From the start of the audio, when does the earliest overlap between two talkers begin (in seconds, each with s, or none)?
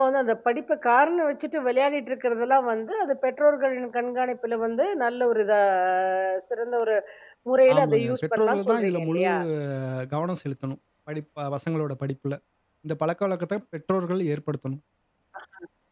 7.8 s